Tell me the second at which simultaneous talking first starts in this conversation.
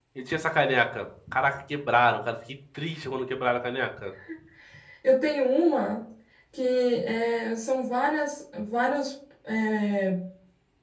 none

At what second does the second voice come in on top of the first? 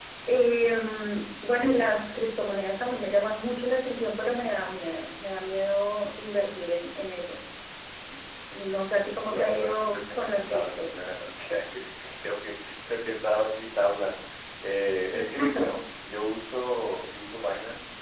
9.2 s

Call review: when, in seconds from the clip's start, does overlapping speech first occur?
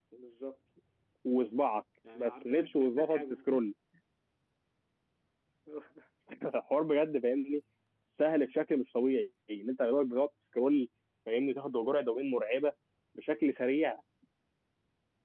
2.1 s

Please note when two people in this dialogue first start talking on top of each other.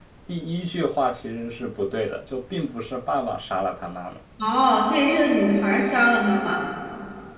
none

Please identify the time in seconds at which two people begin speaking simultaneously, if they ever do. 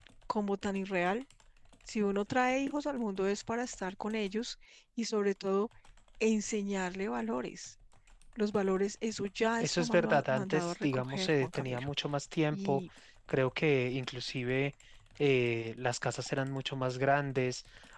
9.6 s

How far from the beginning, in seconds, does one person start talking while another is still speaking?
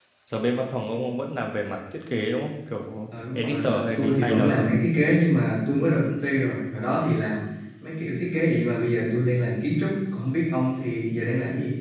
3.4 s

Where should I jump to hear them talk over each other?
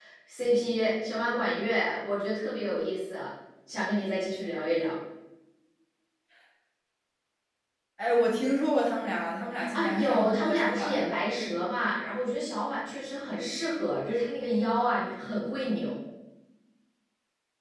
9.6 s

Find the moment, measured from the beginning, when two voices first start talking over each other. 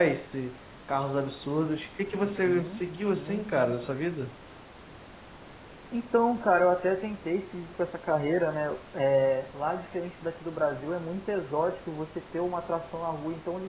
2.2 s

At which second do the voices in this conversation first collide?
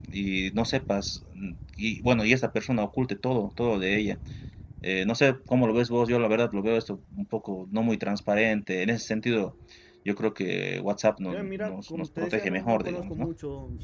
11.3 s

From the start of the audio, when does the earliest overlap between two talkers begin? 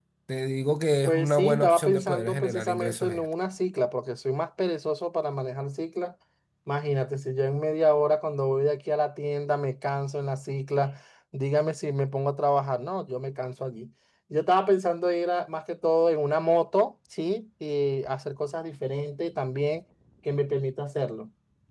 1.1 s

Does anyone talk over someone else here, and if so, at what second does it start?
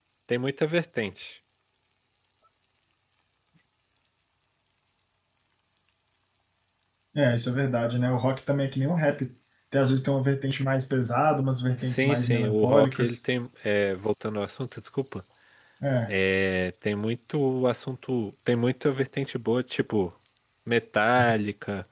11.8 s

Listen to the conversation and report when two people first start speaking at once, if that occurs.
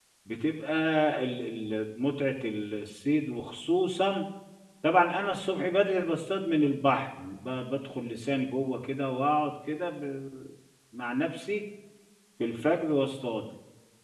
none

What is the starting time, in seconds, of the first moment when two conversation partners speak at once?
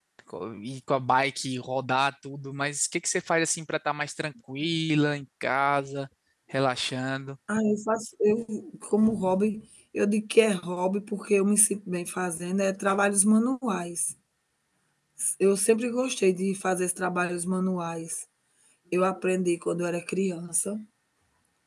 none

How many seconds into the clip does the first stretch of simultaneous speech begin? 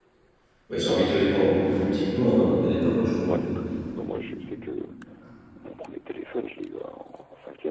none

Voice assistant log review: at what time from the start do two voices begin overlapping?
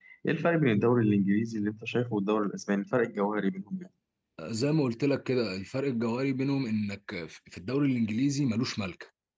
none

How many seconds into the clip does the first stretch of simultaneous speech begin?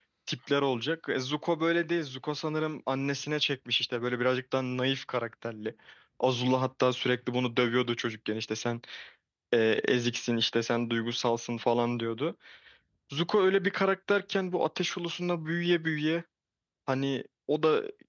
none

